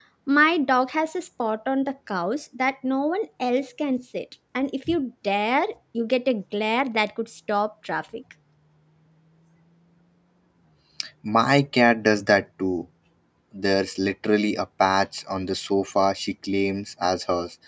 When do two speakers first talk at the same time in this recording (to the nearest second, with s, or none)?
none